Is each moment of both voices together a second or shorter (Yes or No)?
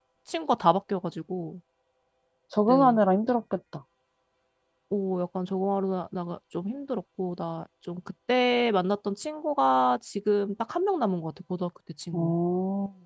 Yes